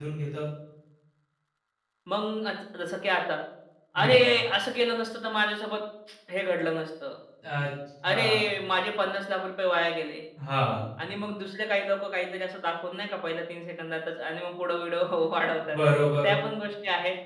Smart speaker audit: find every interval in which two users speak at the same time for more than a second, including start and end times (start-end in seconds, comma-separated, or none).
none